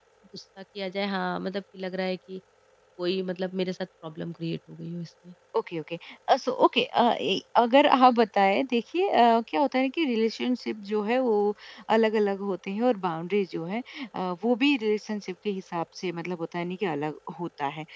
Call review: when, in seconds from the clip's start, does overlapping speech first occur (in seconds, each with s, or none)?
none